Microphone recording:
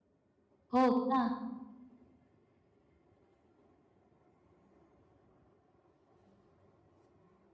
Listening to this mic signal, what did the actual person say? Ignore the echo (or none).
हो का?